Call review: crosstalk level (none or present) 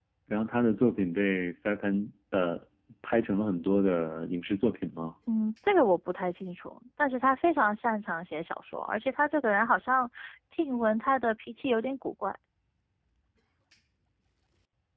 none